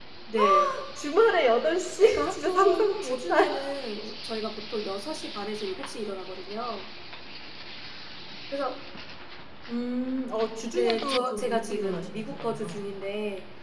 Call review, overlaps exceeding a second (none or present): present